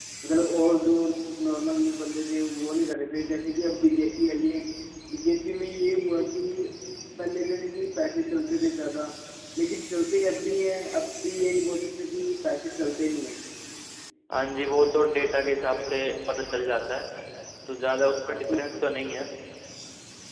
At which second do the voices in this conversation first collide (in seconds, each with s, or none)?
none